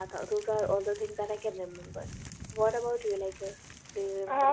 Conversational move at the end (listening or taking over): taking over